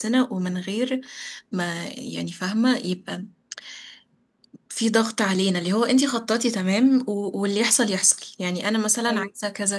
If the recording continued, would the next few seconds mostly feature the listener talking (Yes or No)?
No